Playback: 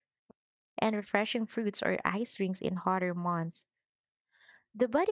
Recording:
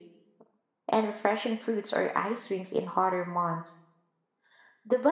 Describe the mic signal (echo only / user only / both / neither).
echo only